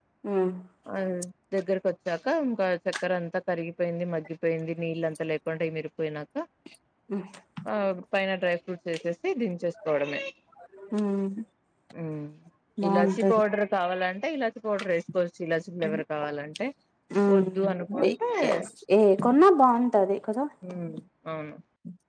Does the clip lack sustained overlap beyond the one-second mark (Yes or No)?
Yes